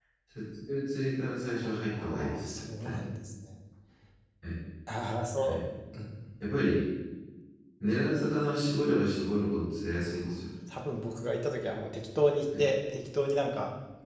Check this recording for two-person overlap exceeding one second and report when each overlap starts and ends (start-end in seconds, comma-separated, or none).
1.6-2.9